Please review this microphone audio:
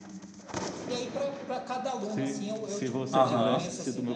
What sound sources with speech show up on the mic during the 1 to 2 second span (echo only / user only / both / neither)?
echo only